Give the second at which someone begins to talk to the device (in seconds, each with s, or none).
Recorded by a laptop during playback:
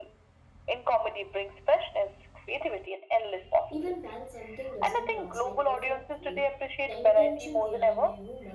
3.7 s